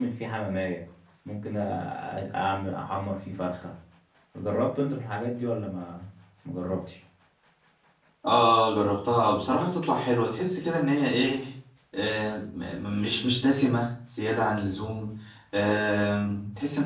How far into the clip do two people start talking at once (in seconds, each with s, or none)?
none